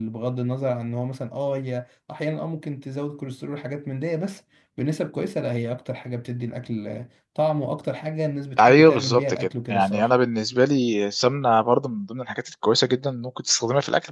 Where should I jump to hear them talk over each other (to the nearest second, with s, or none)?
9 s